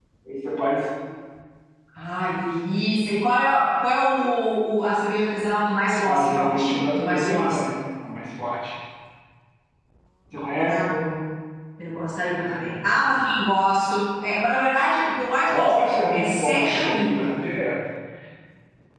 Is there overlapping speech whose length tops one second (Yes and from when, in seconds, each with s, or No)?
Yes, from 6.0 s